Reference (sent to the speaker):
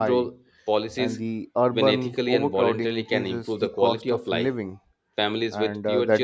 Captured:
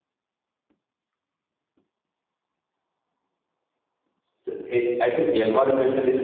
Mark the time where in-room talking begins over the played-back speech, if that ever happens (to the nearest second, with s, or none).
4 s